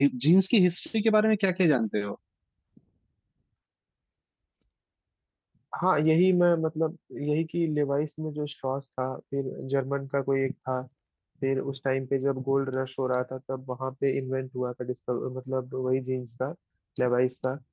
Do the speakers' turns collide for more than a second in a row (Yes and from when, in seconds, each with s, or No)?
No